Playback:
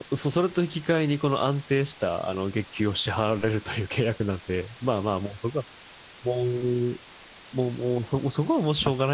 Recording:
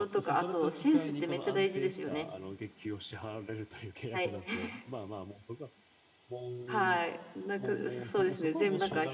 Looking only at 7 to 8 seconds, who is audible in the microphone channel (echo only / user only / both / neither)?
both